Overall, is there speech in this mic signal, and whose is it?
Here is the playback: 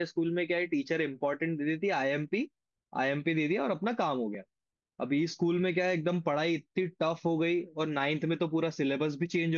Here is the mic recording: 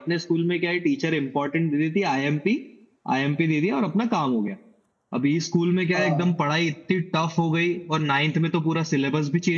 both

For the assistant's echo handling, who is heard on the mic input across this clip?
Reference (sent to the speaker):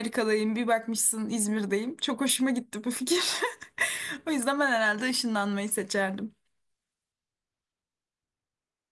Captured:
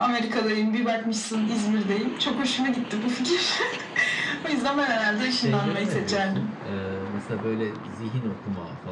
both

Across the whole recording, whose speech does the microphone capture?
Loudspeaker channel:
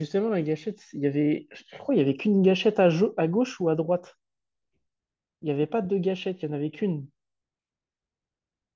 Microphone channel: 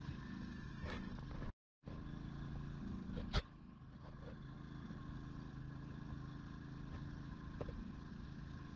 neither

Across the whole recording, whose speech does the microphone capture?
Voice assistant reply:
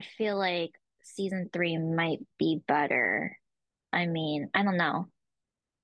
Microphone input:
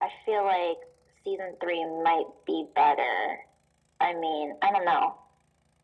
echo only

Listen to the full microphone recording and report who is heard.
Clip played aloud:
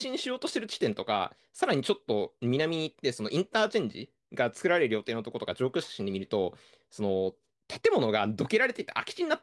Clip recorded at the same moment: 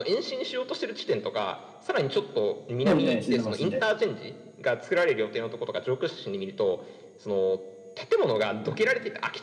both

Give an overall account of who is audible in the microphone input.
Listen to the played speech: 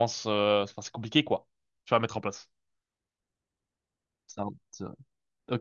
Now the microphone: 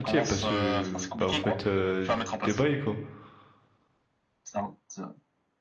both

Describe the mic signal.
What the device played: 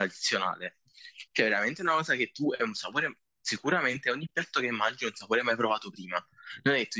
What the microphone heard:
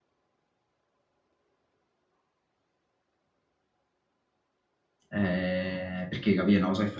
user only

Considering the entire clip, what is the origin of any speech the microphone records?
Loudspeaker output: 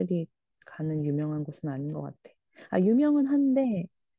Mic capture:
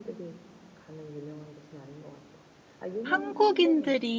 both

